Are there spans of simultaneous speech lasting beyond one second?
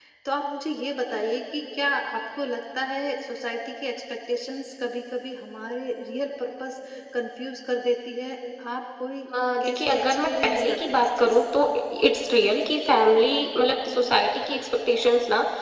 Yes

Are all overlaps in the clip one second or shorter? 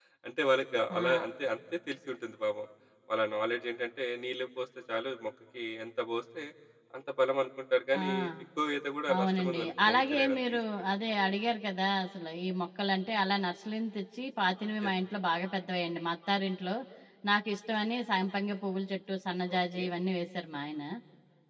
No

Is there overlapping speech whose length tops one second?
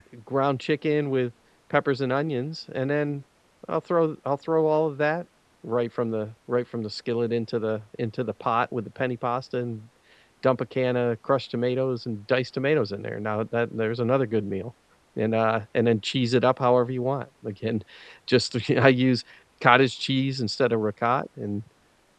No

